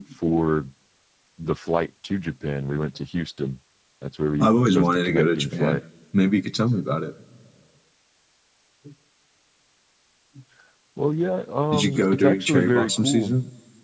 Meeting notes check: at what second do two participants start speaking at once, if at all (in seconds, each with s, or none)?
4.4 s